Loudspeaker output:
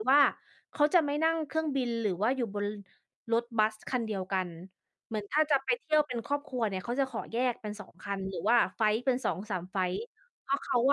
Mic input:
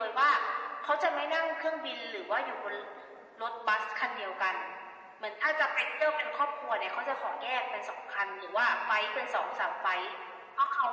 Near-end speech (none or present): none